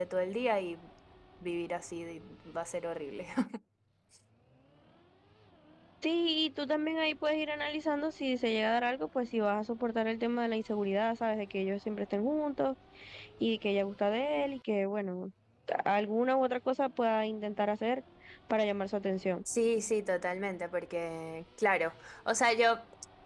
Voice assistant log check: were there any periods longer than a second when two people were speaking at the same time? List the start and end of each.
none

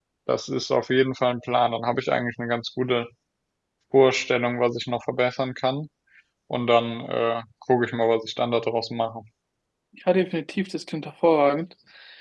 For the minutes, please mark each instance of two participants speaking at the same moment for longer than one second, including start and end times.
none

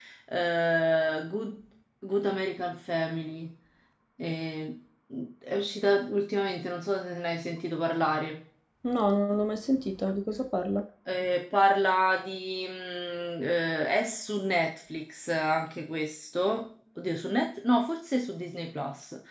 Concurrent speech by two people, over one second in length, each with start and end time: none

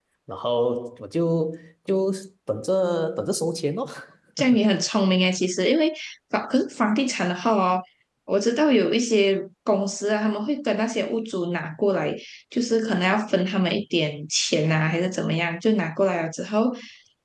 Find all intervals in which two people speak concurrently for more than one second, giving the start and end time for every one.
none

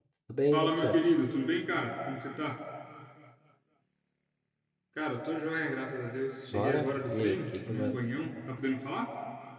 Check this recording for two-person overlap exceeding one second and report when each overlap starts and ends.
6.5-8.0

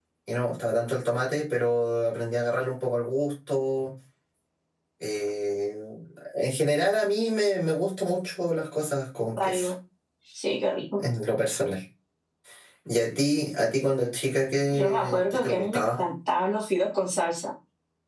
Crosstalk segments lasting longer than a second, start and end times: 14.7-16.0

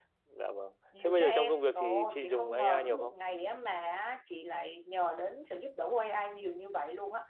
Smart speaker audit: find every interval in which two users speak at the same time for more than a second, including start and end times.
1.0-3.2

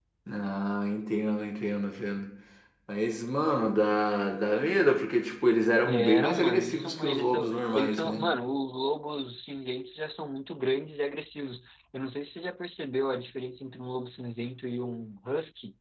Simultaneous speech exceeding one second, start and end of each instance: 5.8-8.2

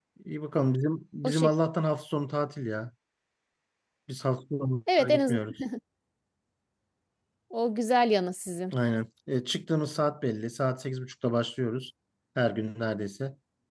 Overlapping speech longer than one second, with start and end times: none

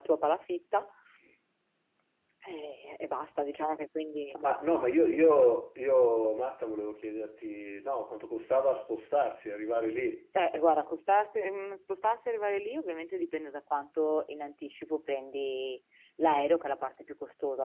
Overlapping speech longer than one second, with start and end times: none

